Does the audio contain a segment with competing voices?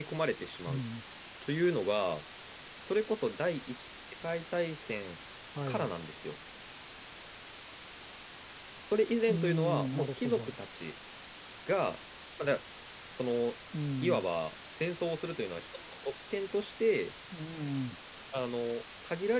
Yes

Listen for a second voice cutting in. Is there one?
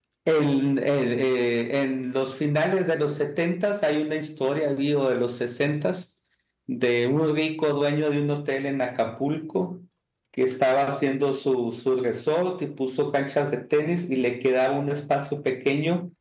No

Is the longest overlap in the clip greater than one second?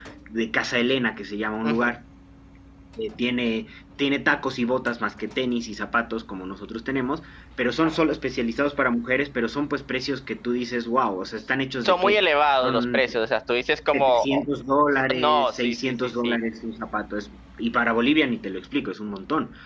Yes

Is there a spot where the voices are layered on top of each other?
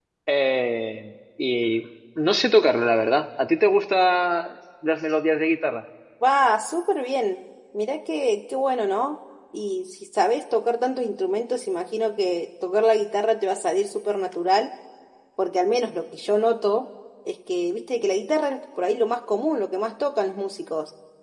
No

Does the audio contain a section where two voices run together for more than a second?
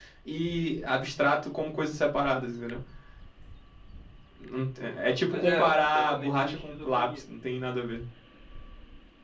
Yes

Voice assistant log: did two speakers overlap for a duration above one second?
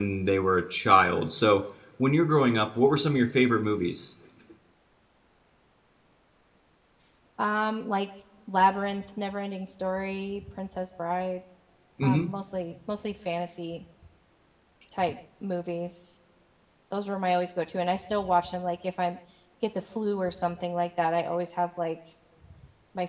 No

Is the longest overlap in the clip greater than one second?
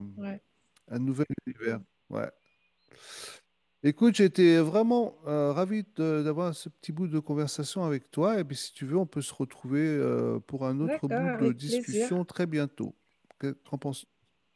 Yes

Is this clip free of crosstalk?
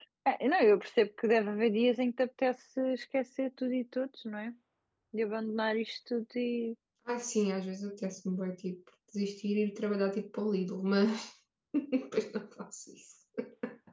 Yes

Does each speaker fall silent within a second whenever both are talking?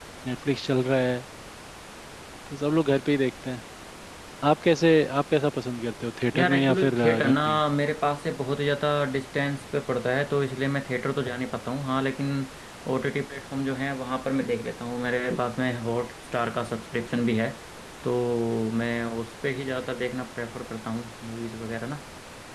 No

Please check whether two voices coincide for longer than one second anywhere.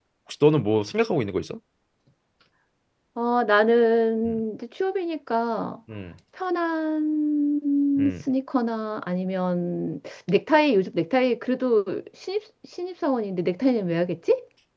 No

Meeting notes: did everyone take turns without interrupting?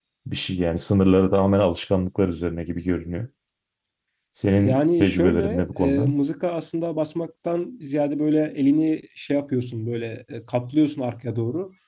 No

